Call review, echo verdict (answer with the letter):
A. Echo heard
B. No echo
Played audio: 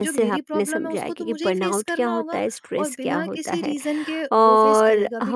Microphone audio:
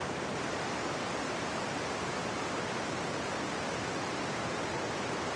B